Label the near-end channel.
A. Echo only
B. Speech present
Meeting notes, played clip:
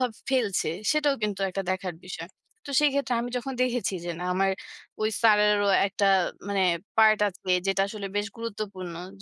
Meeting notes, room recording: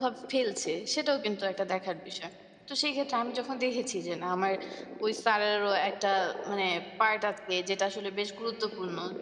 A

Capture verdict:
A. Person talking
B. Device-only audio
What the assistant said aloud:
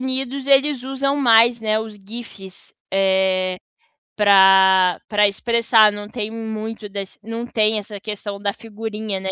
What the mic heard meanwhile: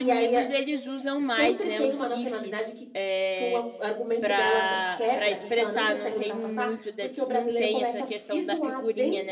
A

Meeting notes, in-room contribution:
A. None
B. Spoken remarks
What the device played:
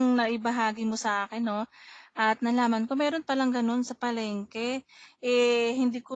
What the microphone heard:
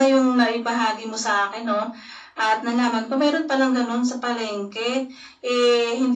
A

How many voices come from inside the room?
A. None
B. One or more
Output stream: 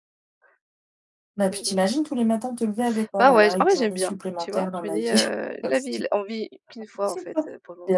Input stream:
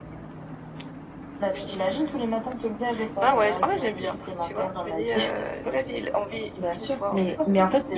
B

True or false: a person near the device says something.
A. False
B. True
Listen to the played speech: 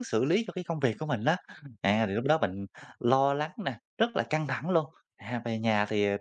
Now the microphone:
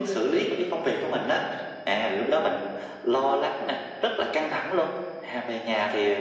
A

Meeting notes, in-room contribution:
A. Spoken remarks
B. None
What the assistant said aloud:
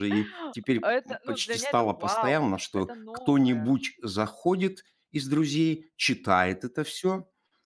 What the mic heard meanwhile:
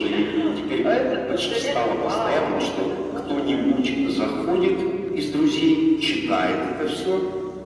B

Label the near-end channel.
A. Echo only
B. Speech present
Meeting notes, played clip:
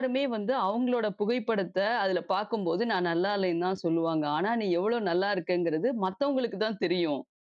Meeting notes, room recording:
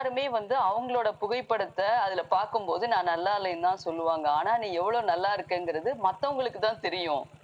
A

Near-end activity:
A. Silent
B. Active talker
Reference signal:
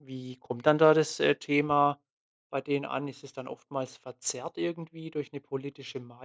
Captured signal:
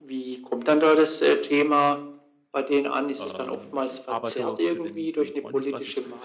B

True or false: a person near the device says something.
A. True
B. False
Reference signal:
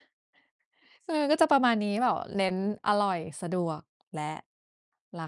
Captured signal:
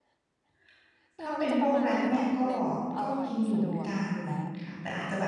A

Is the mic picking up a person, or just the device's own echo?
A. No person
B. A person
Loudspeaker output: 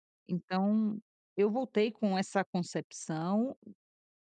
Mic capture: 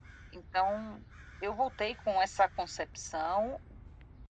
A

